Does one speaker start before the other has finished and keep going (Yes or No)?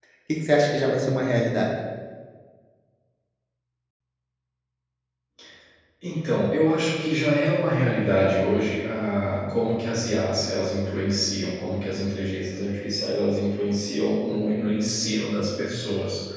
No